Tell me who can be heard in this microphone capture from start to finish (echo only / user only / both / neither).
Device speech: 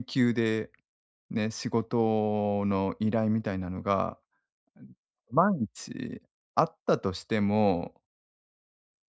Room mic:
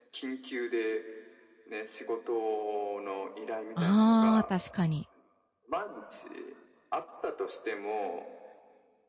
both